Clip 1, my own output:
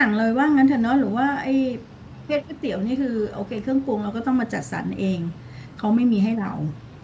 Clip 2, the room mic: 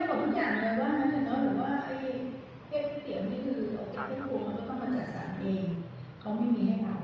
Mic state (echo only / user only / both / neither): both